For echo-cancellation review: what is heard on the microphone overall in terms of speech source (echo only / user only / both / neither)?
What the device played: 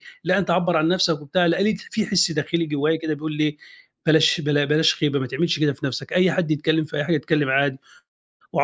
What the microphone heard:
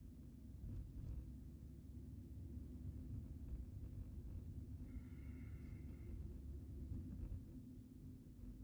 neither